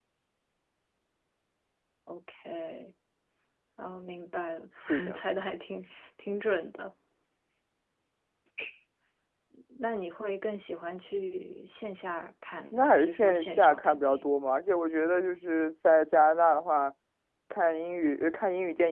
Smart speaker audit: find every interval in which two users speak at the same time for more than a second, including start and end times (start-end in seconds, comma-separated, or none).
12.7-14.3